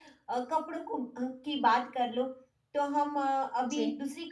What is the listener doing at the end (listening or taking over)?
listening